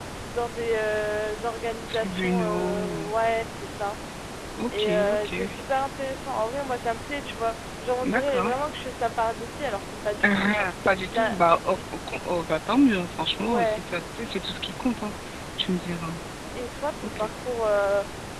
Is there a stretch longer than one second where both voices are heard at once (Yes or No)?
Yes